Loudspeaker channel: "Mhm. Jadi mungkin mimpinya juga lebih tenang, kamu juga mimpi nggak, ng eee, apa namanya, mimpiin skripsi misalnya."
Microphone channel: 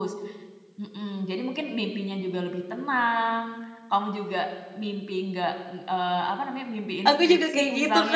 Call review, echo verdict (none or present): present